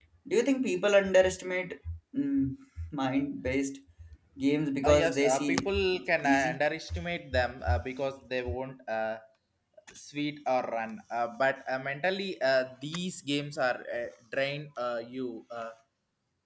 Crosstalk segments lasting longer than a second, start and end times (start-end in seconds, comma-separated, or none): 4.8-6.6